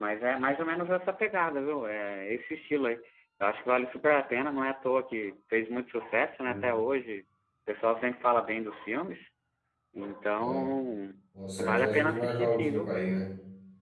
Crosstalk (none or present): present